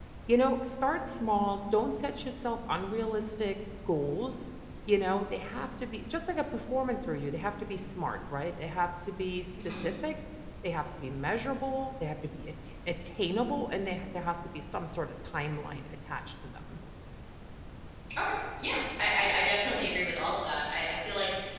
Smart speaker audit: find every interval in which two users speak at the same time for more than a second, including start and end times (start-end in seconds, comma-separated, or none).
none